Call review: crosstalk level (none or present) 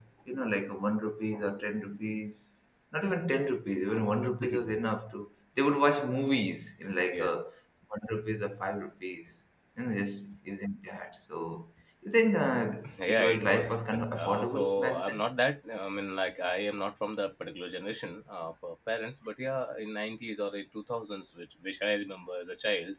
present